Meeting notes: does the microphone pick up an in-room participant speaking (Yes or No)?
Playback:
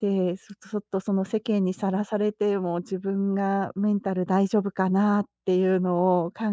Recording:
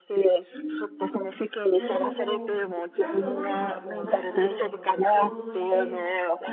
Yes